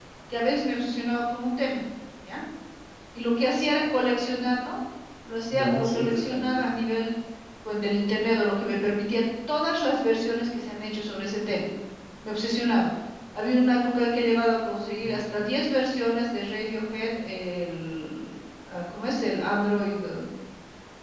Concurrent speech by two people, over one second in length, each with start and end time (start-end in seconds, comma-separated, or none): 5.5-6.8